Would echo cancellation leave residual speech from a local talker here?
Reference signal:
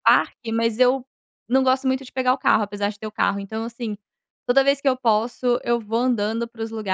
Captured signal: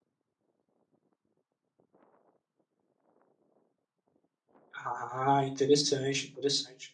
Yes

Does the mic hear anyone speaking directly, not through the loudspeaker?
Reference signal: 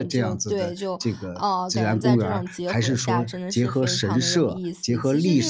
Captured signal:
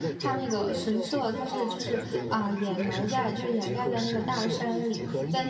Yes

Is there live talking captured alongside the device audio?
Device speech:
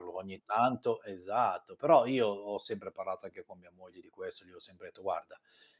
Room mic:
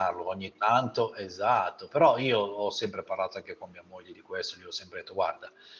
No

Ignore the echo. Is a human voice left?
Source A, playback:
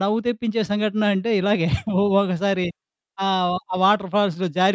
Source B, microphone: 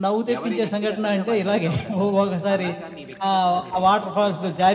Yes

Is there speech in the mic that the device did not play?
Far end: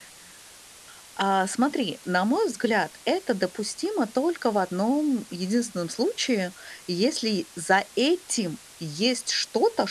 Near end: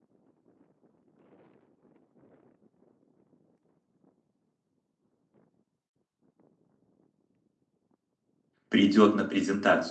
Yes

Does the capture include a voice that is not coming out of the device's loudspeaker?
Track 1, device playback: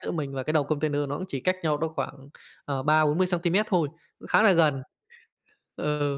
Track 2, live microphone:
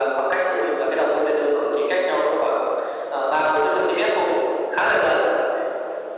No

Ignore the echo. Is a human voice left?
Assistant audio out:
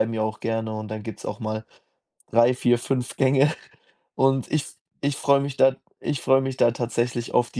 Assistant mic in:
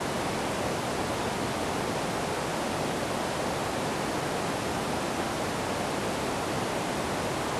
No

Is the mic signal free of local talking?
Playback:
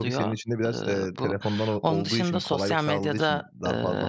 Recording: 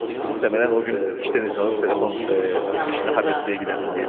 No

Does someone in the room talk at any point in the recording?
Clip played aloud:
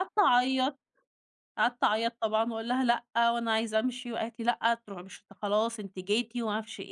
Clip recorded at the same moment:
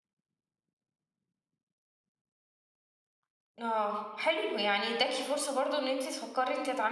Yes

